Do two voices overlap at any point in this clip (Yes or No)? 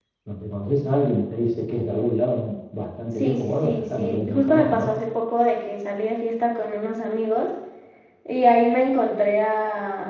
Yes